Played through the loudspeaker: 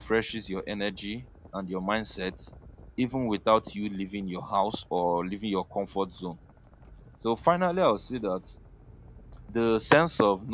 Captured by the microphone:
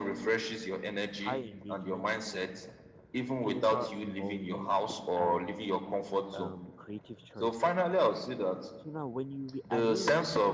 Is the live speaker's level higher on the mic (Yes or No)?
No